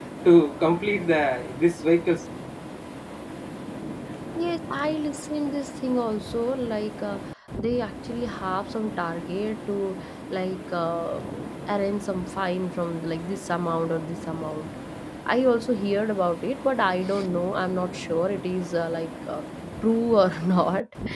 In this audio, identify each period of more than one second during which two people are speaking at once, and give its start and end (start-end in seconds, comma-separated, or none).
none